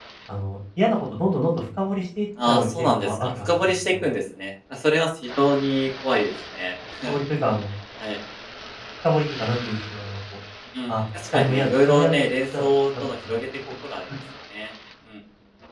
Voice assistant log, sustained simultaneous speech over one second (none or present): present